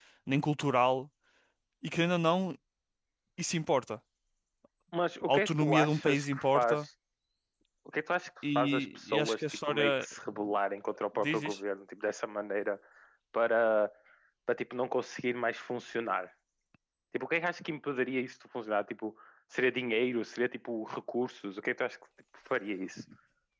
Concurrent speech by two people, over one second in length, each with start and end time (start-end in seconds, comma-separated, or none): 5.2-6.9, 8.6-10.0